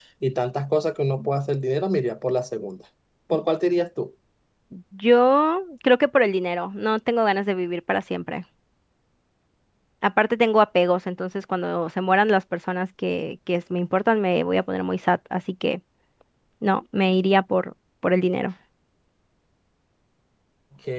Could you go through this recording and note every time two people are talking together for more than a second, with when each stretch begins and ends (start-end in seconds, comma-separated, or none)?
none